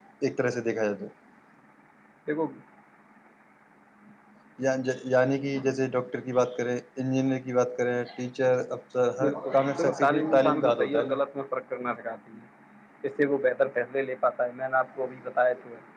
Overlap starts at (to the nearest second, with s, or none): 9 s